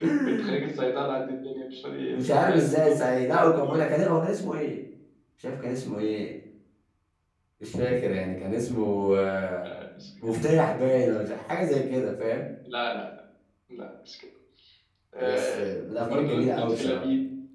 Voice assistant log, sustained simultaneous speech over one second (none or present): present